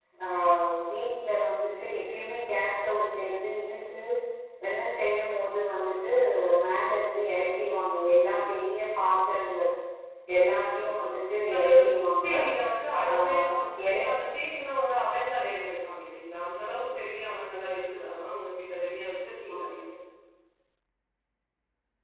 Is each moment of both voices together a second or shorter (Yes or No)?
Yes